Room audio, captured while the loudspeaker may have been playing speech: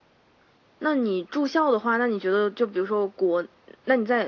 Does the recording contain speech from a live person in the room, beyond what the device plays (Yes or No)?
No